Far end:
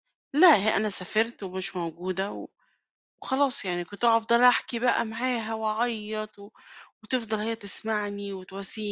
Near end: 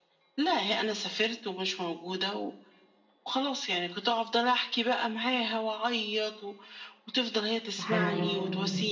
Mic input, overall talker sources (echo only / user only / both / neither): both